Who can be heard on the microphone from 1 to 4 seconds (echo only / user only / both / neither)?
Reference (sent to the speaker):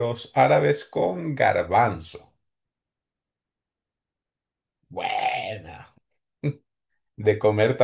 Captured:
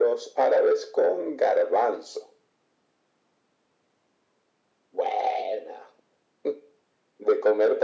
echo only